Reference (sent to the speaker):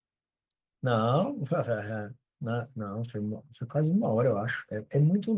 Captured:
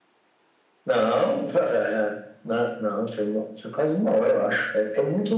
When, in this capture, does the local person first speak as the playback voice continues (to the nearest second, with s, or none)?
none